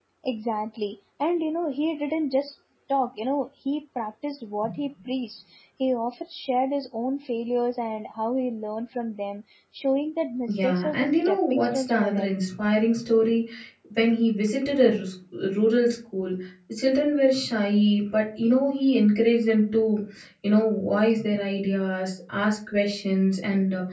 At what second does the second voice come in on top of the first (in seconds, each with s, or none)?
10.5 s